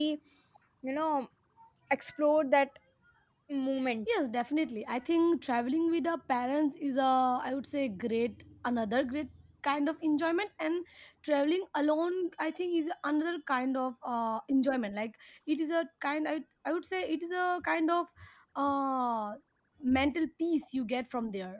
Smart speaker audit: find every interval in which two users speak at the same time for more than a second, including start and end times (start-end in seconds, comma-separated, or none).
none